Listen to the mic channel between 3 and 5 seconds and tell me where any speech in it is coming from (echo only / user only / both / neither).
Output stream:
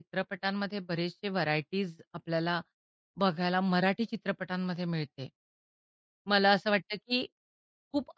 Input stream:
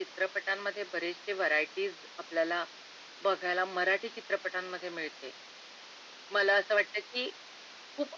echo only